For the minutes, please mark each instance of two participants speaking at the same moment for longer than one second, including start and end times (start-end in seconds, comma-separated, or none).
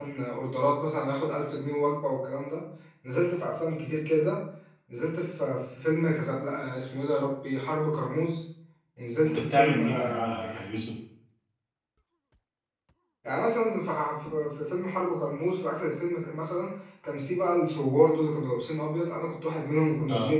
9.2-10.6